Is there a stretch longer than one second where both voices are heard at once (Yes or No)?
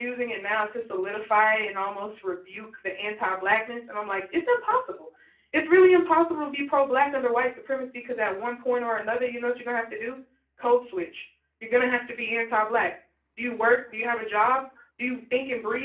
No